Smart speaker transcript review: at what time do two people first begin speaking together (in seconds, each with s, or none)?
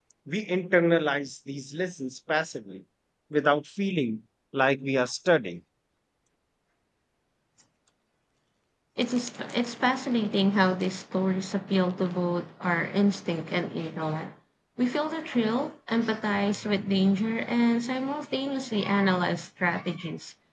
none